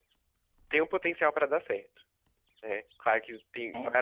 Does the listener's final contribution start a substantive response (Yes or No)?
No